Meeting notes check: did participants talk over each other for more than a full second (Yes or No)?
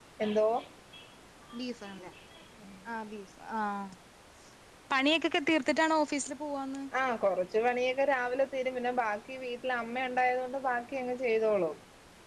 No